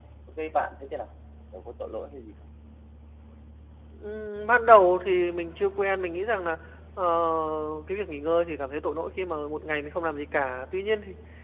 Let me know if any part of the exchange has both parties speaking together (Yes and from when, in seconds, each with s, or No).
No